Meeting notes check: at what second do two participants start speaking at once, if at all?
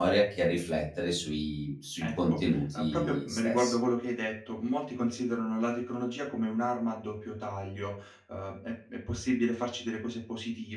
2 s

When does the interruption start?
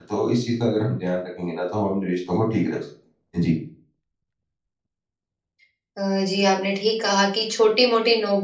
none

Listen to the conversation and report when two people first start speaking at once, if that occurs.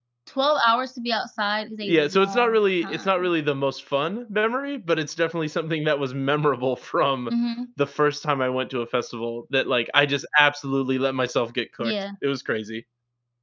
2 s

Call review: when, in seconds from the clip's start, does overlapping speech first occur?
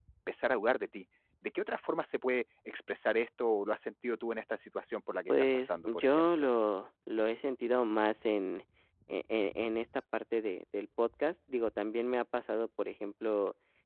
5 s

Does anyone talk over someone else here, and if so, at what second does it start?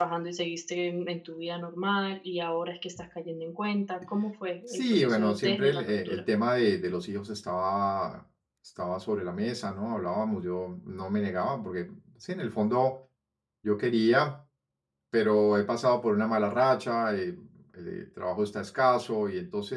5 s

